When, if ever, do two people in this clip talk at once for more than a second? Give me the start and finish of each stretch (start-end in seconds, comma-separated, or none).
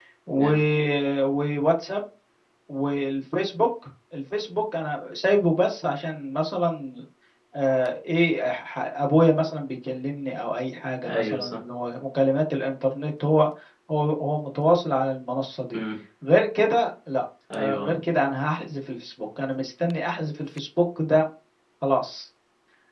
none